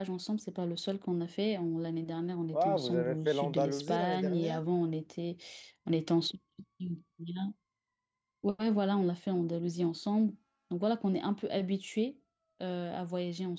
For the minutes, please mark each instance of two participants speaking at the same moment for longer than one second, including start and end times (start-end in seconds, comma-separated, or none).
2.5-4.6